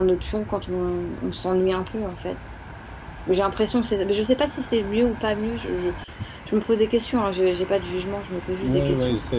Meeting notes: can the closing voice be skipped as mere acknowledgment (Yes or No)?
No